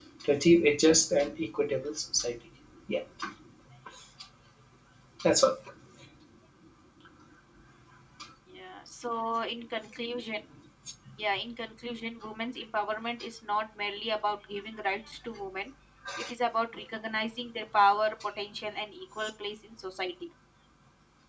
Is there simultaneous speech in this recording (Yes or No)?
No